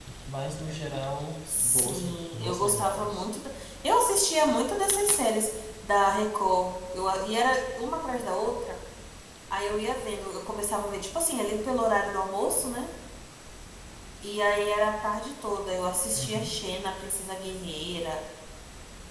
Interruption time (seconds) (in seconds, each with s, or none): 1.5 s